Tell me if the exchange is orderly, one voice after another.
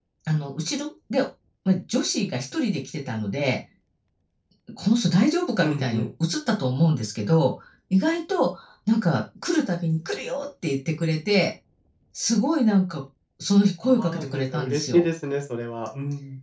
No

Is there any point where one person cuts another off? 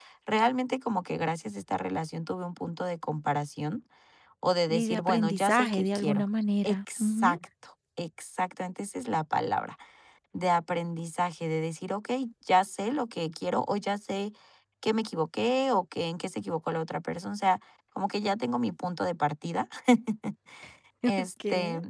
Yes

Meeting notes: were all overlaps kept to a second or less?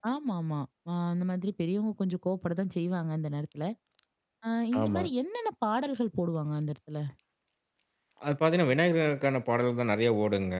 Yes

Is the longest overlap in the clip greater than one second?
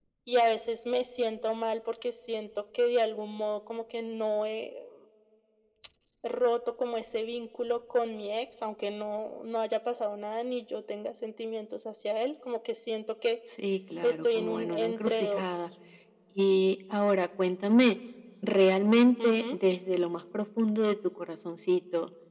Yes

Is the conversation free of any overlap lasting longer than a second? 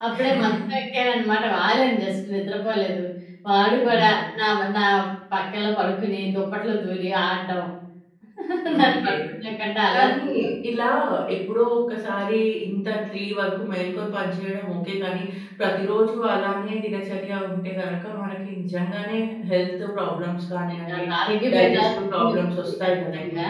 No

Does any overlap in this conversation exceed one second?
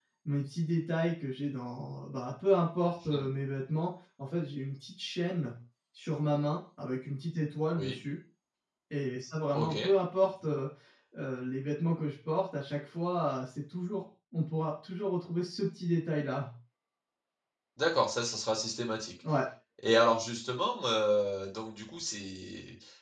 No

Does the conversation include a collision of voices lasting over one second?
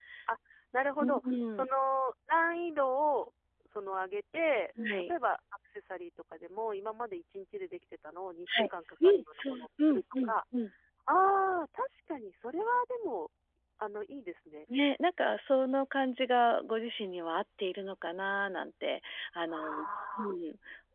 Yes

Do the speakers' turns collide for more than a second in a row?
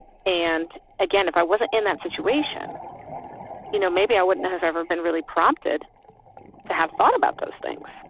No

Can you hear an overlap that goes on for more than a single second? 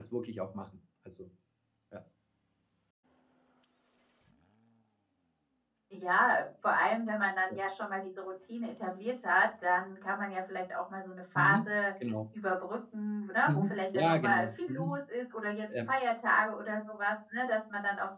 Yes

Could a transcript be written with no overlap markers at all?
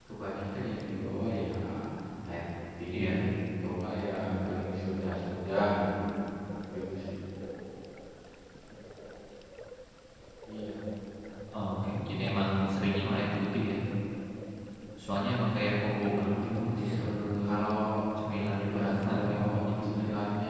No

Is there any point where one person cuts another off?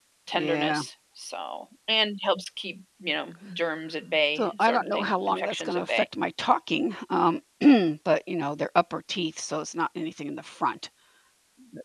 Yes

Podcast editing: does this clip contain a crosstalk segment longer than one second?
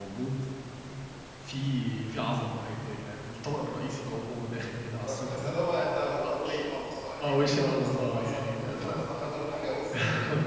Yes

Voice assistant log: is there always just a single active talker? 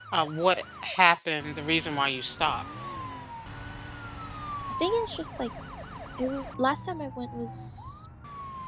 Yes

